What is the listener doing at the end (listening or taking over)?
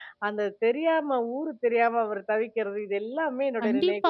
taking over